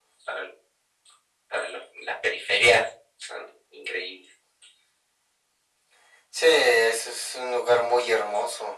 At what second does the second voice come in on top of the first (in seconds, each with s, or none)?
none